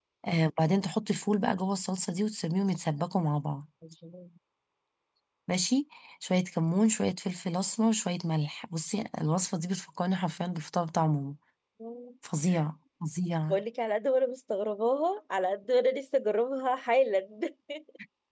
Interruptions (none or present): none